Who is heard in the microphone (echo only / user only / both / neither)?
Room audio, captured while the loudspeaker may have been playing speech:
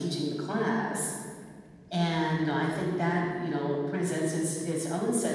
echo only